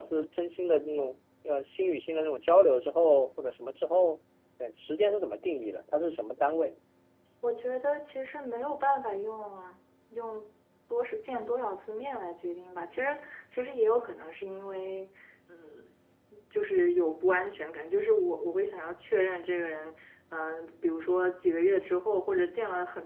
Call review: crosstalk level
none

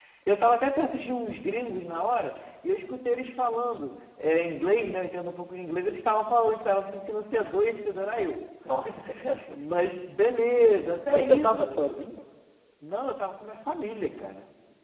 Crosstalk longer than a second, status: none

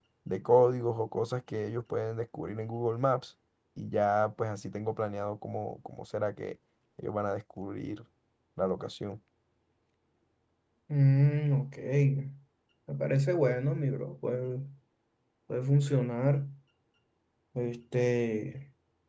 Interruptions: none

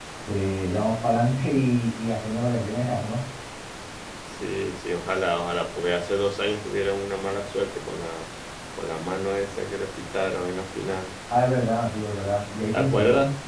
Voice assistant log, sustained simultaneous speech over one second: none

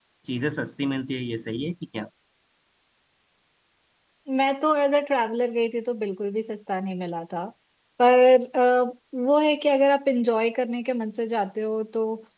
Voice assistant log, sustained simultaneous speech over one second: none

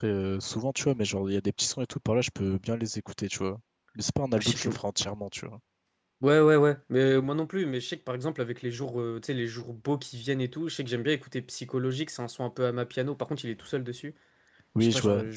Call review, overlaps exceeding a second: none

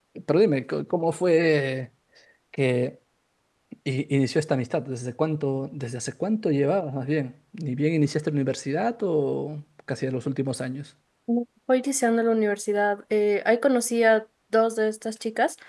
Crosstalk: none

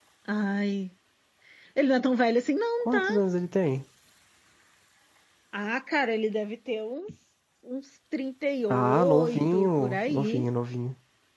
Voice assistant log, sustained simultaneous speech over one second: present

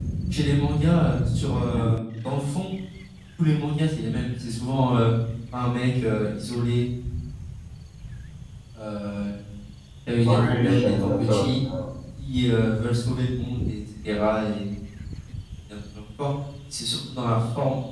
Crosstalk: present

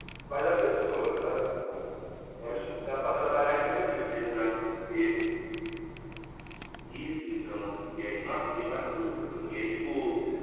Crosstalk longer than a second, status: none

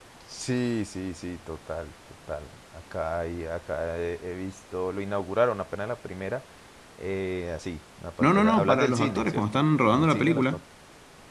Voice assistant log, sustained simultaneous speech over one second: present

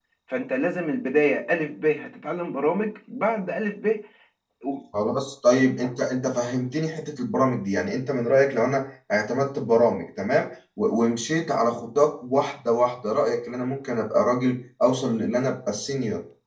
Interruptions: none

